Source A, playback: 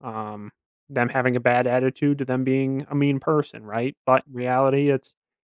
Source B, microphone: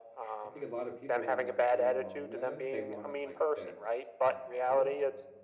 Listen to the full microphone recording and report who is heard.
both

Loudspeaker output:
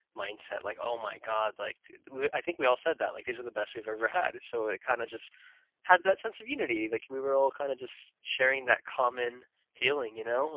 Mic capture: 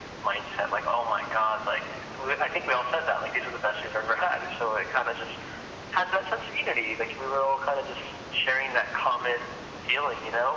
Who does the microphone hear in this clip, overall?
echo only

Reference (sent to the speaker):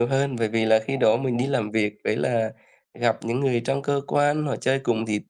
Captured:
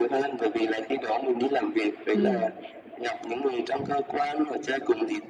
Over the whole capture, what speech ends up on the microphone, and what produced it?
both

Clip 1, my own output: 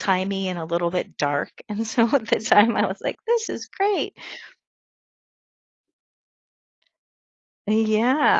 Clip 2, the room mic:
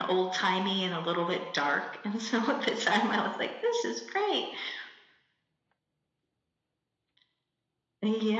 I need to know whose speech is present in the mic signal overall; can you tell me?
echo only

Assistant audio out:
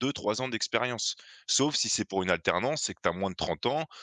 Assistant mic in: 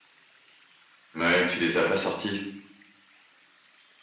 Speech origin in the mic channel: user only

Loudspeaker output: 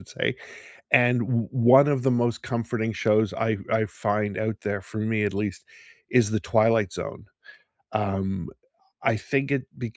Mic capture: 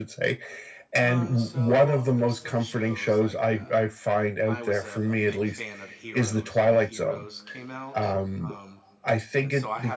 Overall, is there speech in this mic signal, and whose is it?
both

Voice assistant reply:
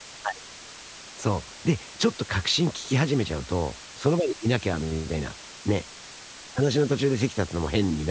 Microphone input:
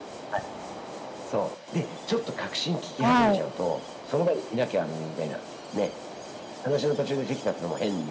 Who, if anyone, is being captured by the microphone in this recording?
both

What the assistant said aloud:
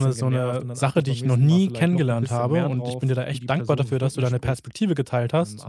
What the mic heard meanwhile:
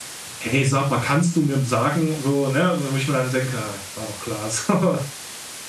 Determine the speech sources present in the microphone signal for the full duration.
user only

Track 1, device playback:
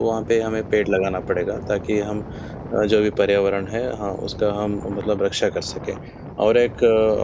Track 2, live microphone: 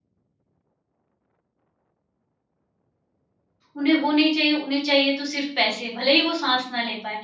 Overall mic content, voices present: user only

